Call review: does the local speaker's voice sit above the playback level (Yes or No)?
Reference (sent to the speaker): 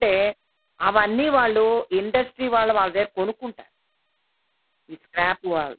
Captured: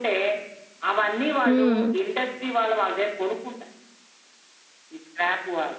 Yes